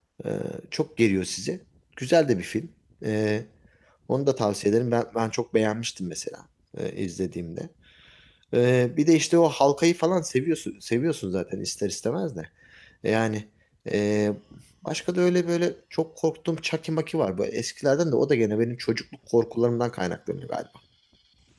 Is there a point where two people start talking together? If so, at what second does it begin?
none

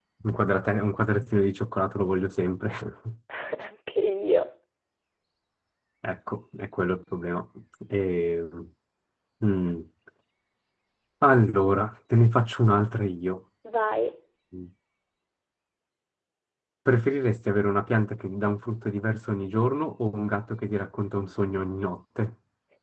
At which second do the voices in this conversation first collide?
none

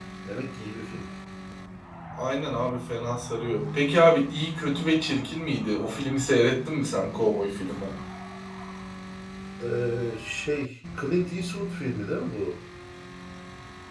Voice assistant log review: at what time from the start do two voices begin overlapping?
none

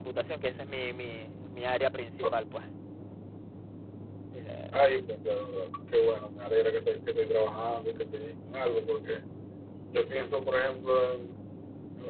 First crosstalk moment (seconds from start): none

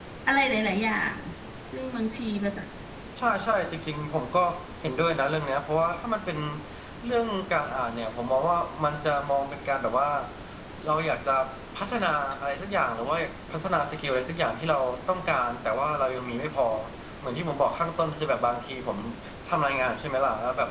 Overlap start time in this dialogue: none

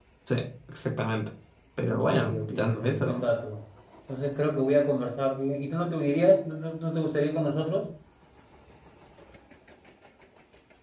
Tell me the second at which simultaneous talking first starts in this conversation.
1.9 s

